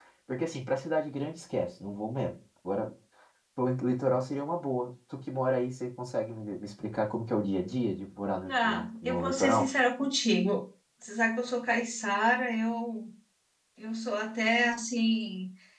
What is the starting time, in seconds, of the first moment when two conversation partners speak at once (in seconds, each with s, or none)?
8.4 s